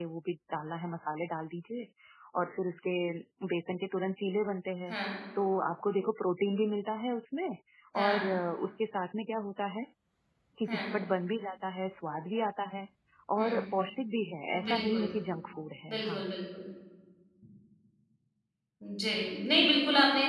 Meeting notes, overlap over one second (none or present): none